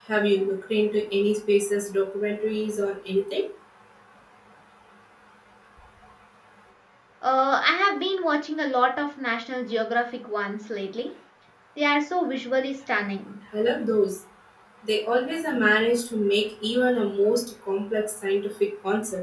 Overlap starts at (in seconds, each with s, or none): none